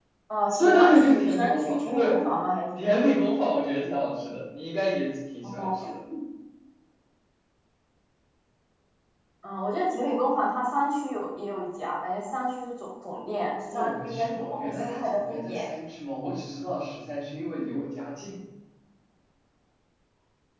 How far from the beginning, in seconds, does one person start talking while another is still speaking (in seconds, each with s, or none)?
0.6 s